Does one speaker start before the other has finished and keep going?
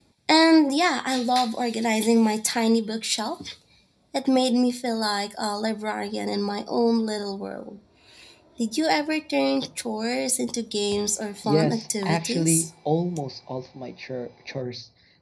Yes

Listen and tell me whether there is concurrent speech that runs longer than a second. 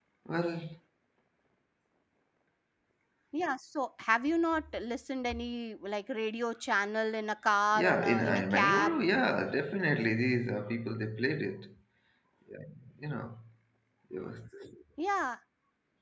Yes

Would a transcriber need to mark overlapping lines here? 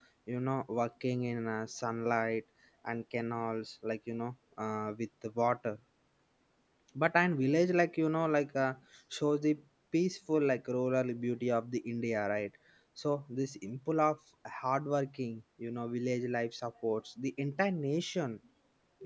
No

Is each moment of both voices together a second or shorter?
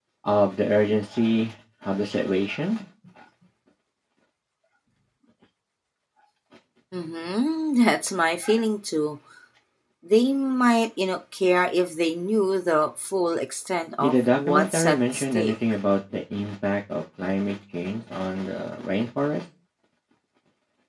No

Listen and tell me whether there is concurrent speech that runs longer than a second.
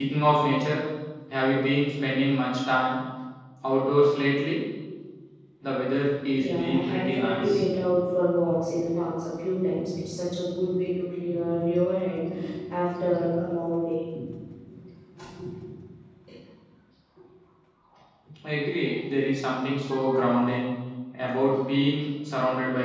Yes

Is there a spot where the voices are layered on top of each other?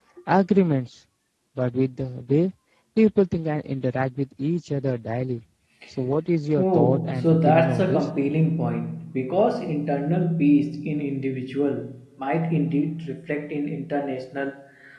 Yes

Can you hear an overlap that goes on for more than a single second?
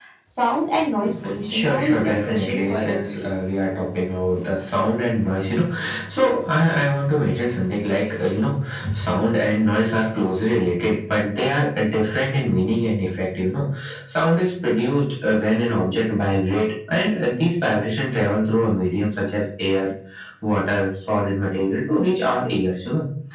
Yes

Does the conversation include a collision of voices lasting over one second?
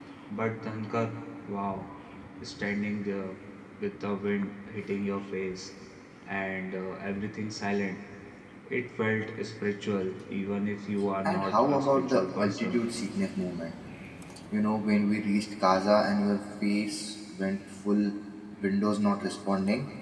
Yes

